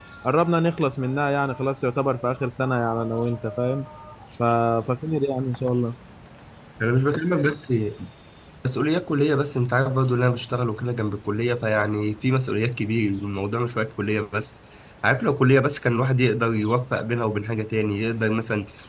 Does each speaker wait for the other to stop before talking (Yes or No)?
Yes